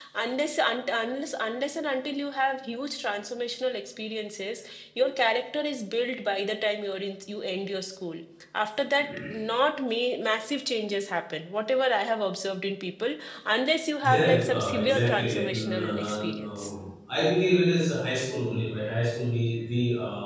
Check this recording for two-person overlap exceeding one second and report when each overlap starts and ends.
14.0-16.7

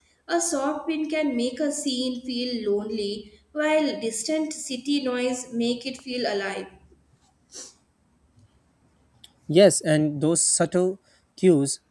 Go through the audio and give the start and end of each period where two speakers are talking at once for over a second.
none

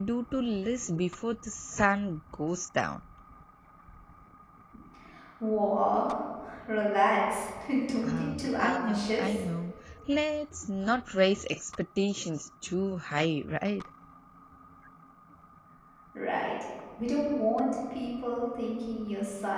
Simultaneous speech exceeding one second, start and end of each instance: 8.1-9.4

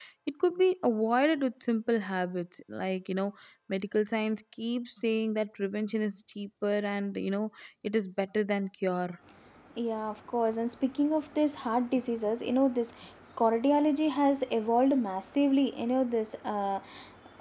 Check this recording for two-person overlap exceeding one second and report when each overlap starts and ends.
none

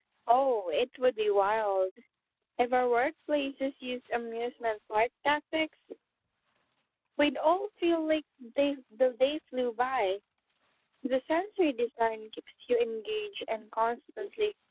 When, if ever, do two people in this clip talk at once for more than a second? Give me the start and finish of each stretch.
none

